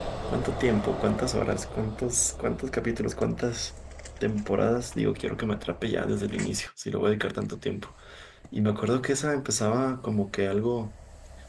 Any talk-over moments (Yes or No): No